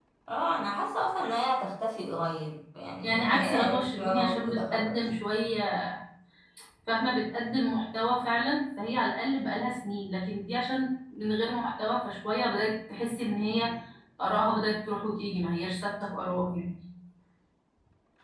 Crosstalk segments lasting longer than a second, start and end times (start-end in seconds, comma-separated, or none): 3.0-5.0